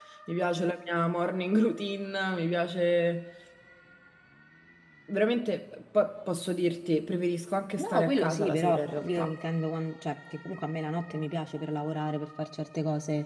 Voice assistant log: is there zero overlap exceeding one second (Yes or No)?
No